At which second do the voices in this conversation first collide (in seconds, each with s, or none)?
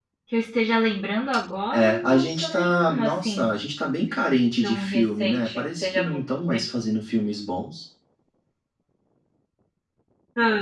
1.7 s